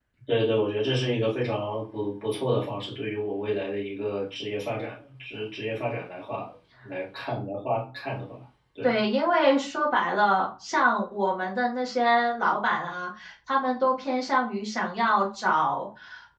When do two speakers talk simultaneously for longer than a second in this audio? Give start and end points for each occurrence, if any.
none

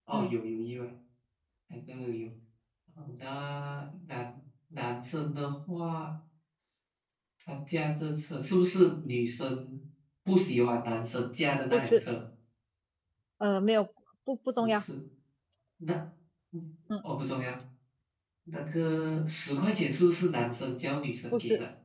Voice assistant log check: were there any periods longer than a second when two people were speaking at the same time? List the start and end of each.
none

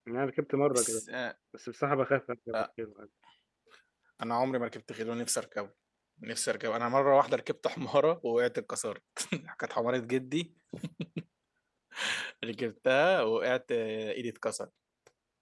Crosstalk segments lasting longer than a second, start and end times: none

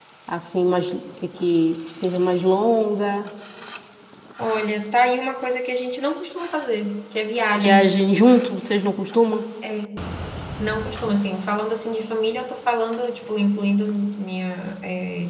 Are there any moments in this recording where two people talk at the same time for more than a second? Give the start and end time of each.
none

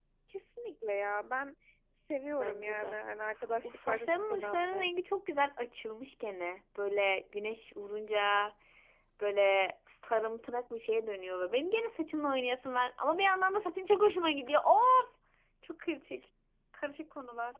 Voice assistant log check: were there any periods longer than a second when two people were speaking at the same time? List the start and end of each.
3.6-4.9

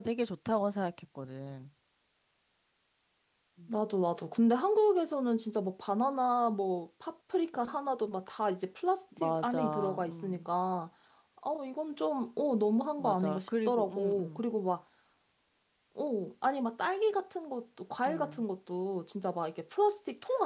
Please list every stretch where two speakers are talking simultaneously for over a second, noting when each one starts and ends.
9.2-10.4, 13.0-14.4

